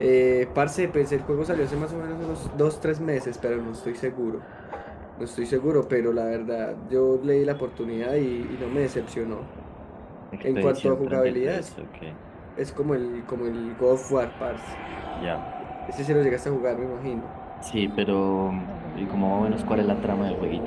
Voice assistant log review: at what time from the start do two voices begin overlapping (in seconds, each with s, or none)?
10.4 s